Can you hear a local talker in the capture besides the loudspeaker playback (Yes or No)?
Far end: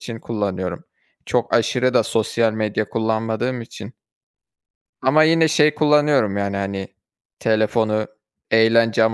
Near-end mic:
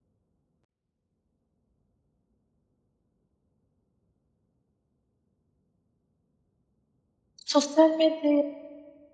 Yes